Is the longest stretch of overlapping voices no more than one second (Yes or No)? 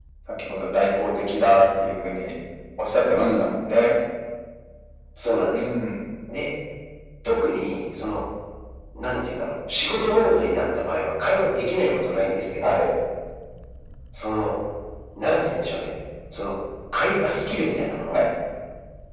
Yes